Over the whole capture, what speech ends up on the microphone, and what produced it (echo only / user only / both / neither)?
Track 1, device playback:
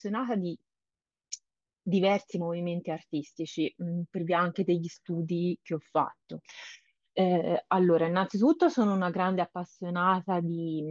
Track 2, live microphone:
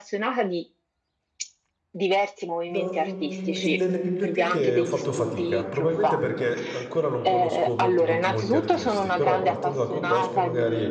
both